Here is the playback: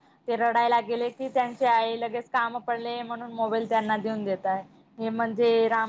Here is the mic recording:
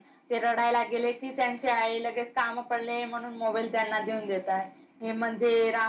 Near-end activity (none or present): none